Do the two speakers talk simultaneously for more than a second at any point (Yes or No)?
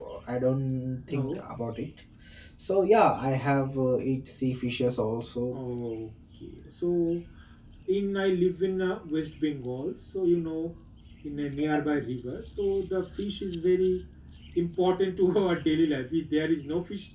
No